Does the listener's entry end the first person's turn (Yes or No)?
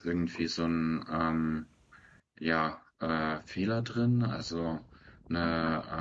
No